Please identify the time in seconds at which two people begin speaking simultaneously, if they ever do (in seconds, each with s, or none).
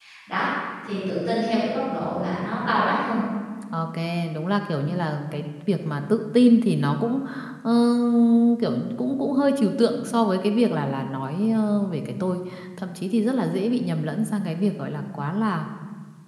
none